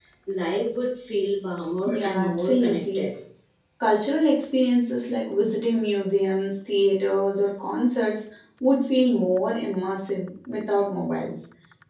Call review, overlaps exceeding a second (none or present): present